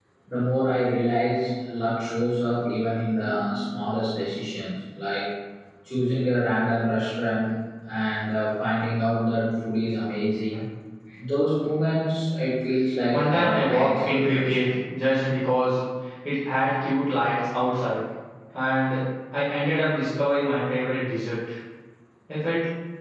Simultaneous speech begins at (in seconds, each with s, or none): 13.1 s